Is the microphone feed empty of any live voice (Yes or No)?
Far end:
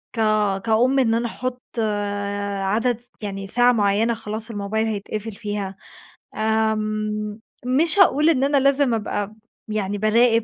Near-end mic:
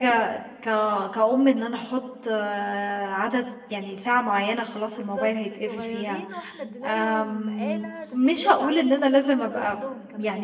No